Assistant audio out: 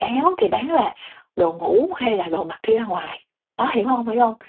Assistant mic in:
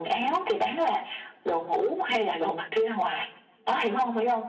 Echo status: present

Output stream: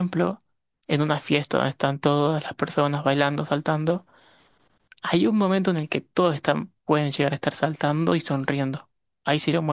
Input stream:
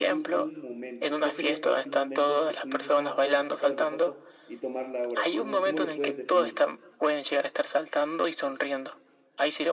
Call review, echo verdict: present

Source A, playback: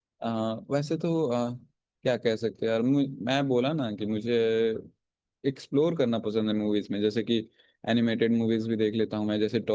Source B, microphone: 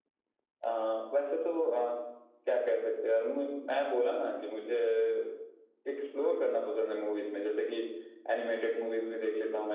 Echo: present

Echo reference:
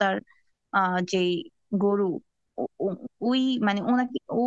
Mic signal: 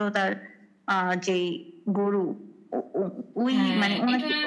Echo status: present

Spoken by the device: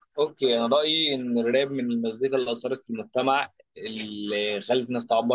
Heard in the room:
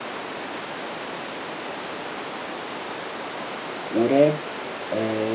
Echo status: none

